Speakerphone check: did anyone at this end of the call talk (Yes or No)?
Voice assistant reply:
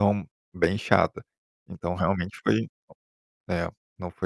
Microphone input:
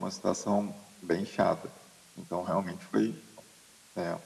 No